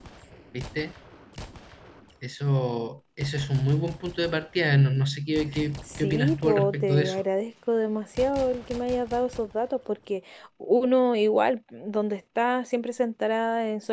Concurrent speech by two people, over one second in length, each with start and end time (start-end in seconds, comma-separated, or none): 6.0-7.2